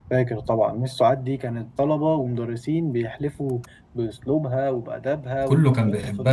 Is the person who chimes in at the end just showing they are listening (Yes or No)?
No